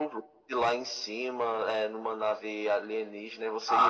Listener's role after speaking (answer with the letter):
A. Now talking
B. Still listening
A